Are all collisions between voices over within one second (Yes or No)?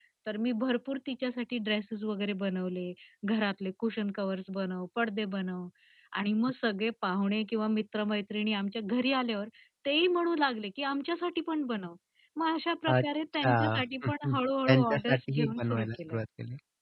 No